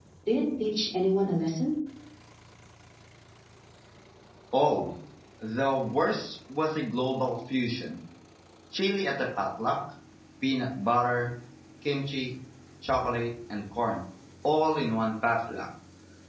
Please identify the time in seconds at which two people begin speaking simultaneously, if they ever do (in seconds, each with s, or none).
none